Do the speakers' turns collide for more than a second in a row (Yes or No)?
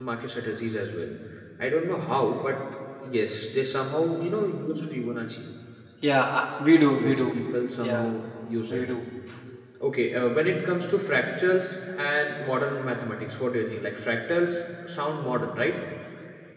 No